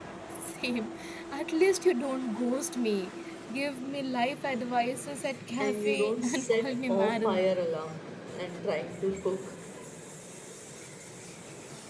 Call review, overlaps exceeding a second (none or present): present